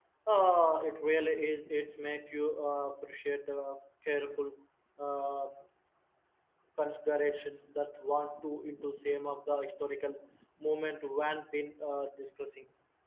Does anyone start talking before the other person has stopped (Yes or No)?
No